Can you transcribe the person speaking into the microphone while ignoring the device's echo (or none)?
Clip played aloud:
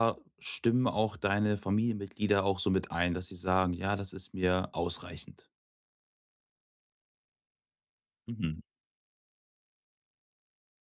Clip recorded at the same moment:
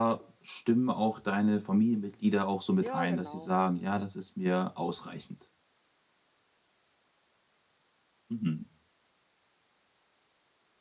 Ja, genau.